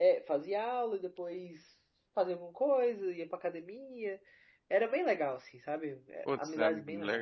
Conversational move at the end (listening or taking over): taking over